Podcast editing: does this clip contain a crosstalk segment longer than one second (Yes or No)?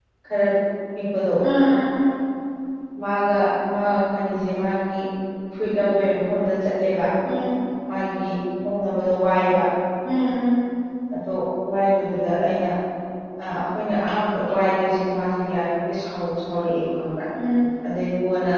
No